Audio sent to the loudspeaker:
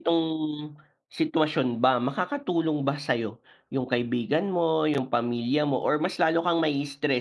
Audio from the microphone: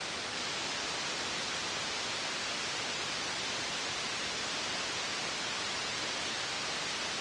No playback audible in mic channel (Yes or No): Yes